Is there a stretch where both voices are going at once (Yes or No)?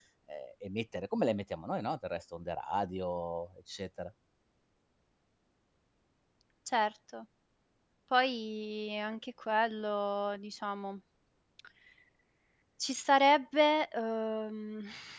No